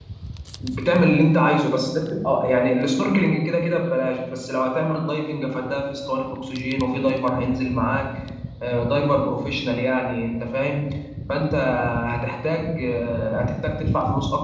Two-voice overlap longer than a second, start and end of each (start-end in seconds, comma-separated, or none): none